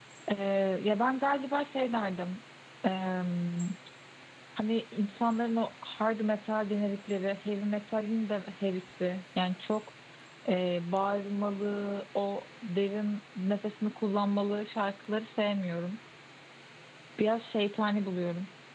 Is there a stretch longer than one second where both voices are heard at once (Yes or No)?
No